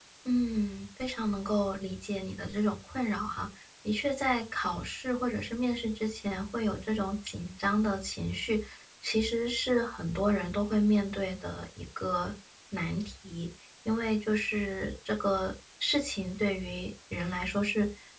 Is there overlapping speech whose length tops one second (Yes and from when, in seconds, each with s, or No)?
No